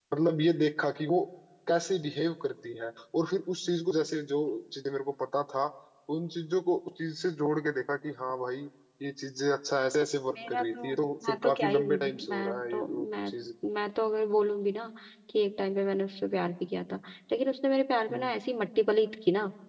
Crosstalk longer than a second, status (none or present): present